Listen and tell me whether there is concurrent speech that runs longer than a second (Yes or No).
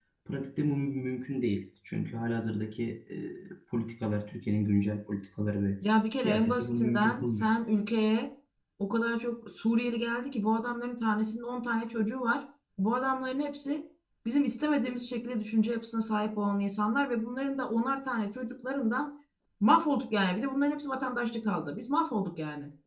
Yes